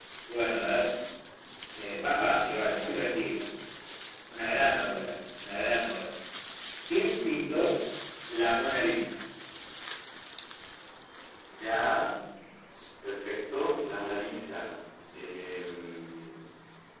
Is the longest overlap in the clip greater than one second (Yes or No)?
No